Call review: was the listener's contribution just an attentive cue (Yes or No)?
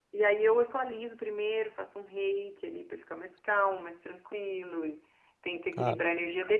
Yes